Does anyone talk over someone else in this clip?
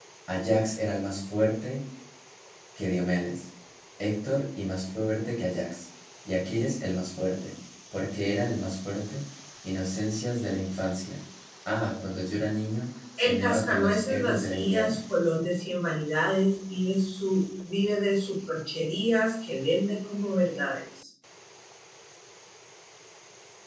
Yes, from 13.2 s

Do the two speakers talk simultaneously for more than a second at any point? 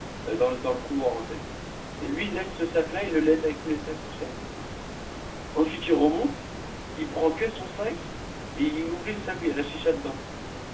No

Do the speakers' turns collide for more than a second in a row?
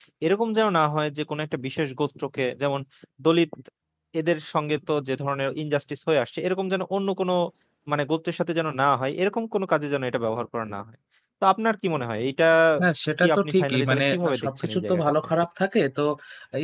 Yes, from 13.2 s

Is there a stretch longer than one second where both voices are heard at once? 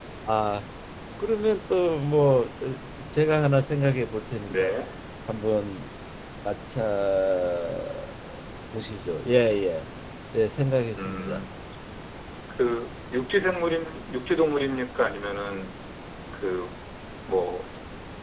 No

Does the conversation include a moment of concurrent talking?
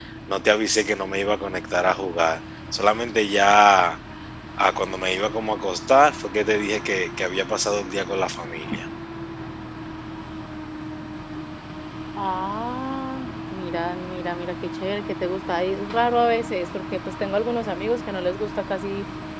No

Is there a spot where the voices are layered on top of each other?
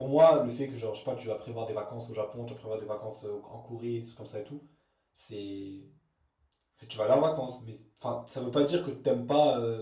No

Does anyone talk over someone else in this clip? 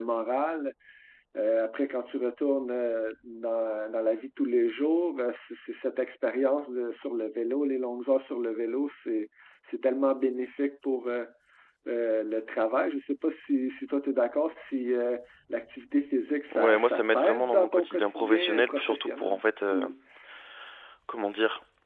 Yes, from 16.5 s

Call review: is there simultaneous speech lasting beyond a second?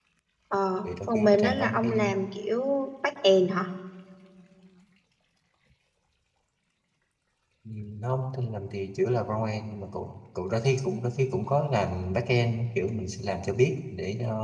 Yes, from 0.8 s

